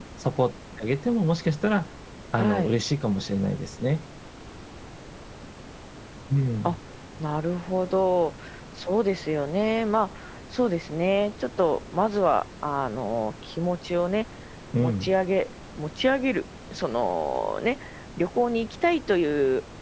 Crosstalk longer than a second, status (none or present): none